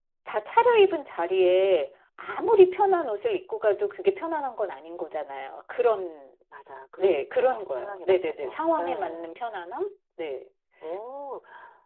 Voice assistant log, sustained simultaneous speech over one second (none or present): present